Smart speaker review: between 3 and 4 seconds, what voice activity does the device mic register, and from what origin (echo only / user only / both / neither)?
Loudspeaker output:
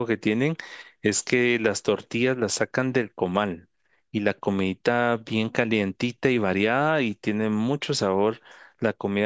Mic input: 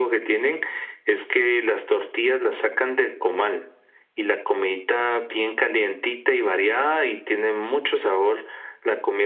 echo only